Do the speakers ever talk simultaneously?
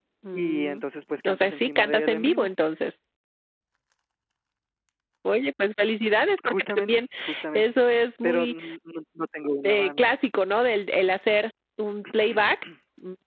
Yes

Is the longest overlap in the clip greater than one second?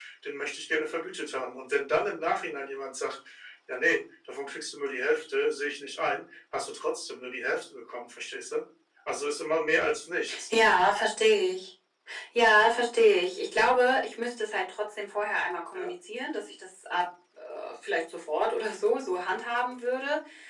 No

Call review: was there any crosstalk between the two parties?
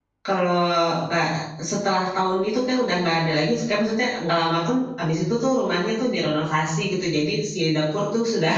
No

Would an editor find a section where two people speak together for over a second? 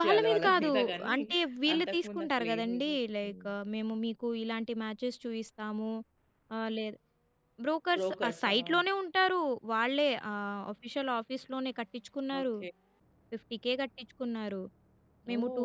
Yes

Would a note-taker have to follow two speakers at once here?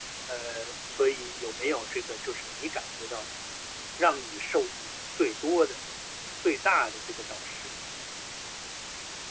No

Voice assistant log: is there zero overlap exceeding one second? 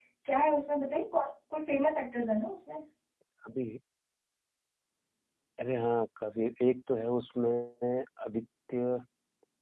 Yes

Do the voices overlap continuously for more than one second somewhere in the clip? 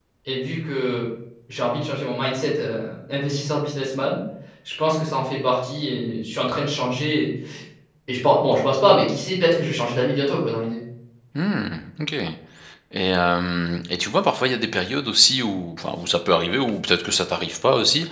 No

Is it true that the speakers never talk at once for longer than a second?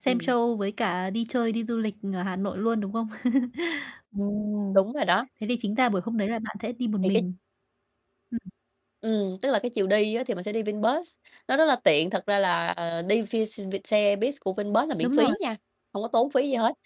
Yes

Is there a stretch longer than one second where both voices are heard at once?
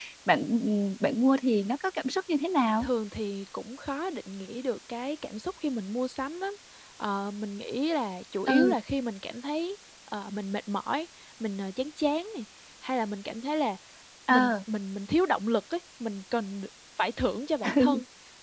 No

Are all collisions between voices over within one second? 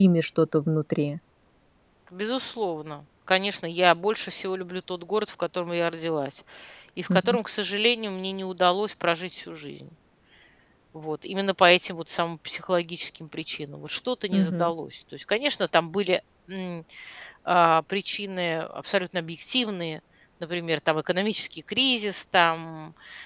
Yes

